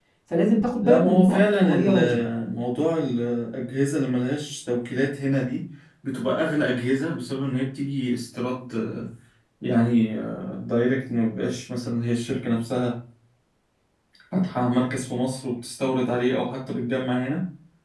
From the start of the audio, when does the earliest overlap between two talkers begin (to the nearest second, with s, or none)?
1 s